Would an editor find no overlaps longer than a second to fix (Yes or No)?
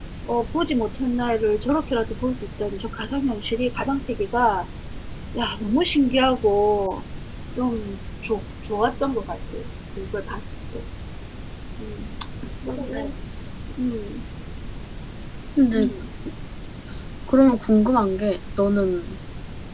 Yes